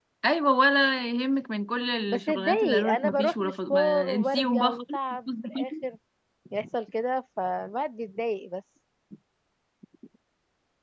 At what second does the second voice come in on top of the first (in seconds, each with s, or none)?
2.1 s